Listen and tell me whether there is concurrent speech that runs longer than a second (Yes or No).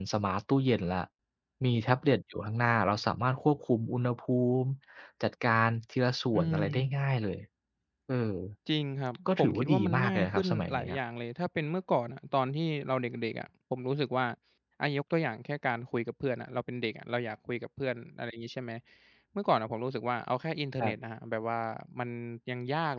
Yes